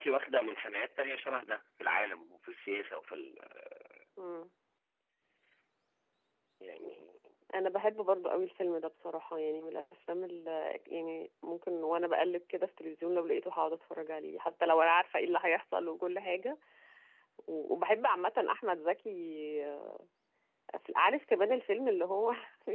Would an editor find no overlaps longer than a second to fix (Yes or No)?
Yes